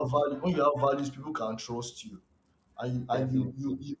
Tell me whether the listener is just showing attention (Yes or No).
Yes